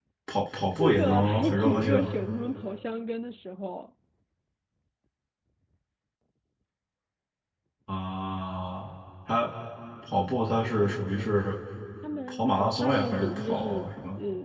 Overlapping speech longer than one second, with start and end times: 0.8-2.1, 12.3-13.8

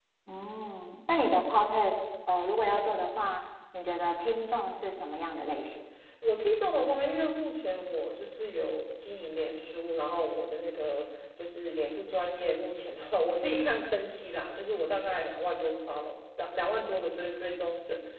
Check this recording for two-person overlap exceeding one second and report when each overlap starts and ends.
none

